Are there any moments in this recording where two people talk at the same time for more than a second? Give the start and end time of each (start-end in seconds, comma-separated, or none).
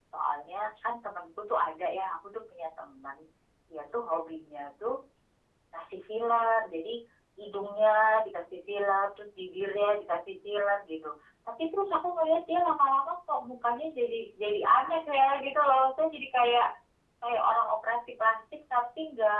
none